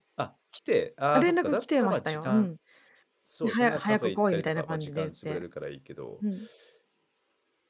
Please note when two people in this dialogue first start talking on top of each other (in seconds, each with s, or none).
1.1 s